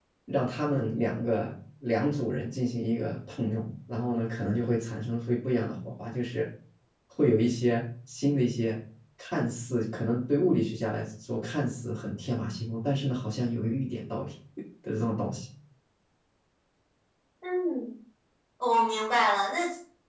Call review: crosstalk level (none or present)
none